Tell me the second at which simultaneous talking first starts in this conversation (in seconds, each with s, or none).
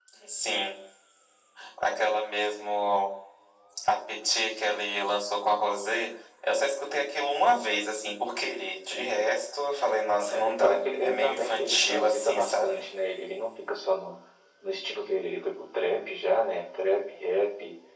10.4 s